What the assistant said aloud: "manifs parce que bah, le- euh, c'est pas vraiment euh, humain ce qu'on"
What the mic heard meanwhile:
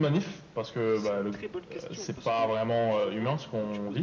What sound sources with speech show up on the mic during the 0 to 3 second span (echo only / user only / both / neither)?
both